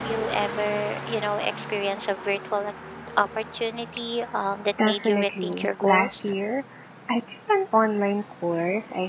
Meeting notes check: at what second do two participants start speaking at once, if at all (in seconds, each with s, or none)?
4.8 s